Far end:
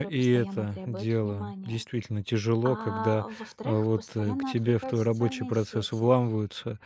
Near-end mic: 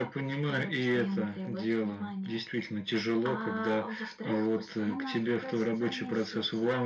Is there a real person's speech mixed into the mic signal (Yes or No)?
No